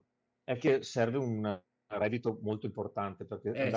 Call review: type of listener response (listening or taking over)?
listening